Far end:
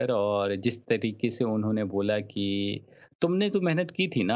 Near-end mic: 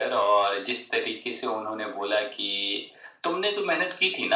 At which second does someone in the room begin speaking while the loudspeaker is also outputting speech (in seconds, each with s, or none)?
none